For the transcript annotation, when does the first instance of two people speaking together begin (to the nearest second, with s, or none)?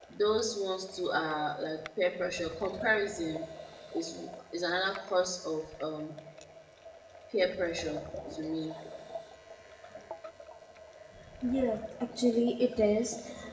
none